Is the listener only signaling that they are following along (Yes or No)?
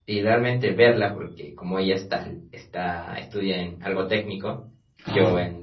Yes